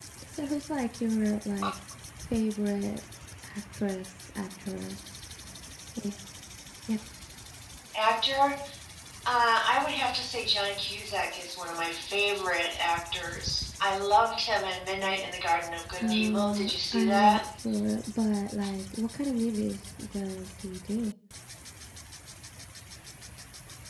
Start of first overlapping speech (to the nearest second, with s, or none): 16 s